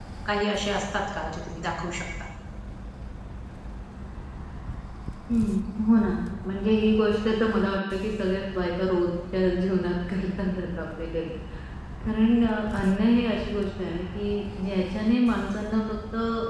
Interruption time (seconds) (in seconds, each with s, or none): none